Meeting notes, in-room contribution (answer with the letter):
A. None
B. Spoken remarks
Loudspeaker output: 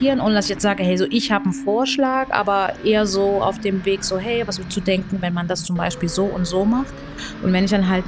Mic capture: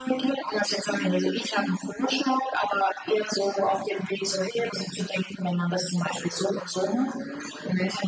A